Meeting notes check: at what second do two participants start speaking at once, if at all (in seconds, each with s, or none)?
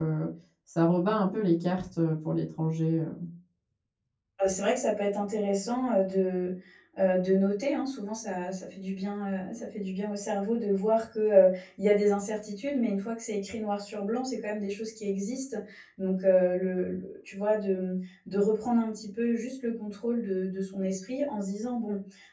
none